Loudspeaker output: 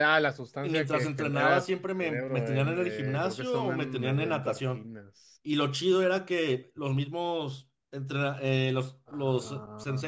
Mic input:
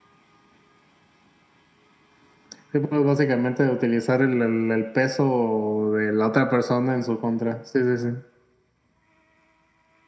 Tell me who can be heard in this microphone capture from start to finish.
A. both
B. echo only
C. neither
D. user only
D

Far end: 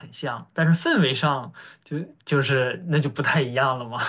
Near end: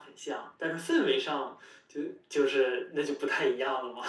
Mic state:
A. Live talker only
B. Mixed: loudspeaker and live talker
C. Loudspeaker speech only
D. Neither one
C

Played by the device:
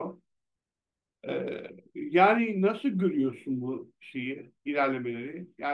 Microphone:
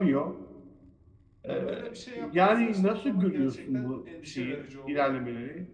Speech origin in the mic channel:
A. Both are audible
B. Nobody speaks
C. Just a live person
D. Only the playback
A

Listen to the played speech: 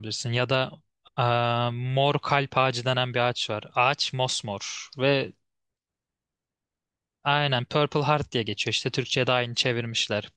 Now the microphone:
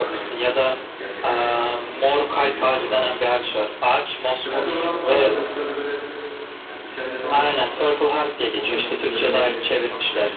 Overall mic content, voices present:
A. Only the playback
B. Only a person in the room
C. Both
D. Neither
C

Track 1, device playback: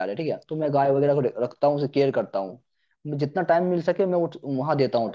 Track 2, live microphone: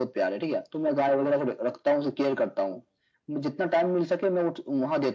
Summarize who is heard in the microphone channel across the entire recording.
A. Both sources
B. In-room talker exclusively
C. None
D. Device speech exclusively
D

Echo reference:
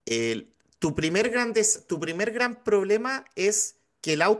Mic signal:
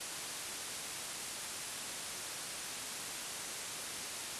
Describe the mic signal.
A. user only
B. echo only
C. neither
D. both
C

